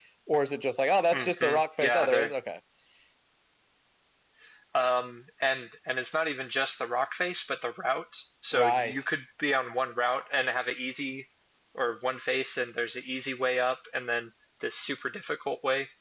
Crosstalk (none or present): present